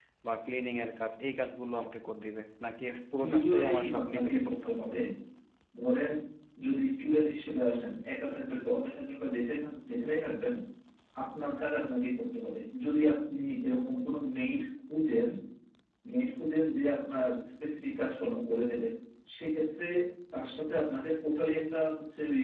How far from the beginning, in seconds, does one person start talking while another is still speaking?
3 s

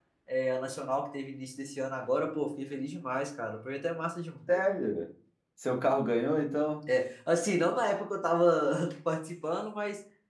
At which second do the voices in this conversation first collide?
none

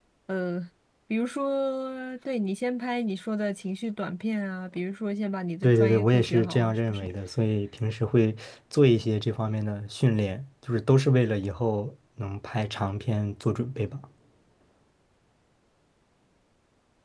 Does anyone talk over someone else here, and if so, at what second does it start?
6 s

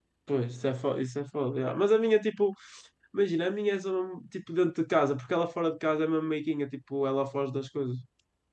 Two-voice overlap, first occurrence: none

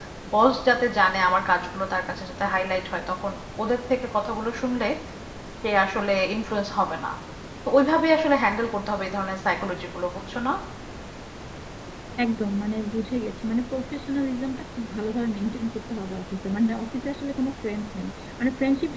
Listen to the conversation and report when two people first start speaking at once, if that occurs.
none

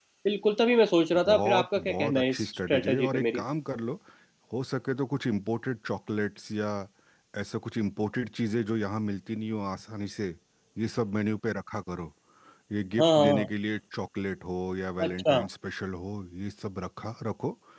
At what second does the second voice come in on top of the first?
1 s

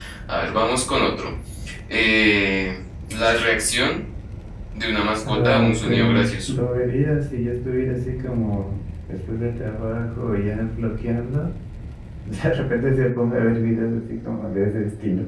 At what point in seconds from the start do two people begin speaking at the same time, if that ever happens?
5 s

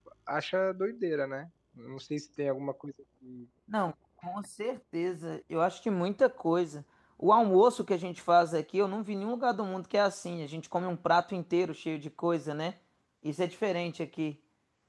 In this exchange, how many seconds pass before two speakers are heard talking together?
none

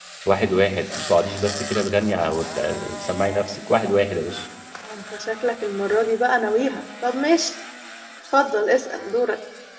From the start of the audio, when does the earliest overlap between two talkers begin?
none

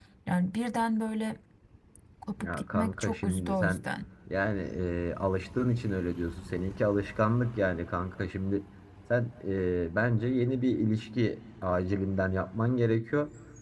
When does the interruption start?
2 s

